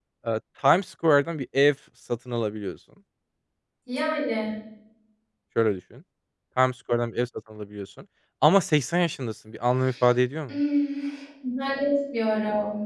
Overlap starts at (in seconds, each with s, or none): none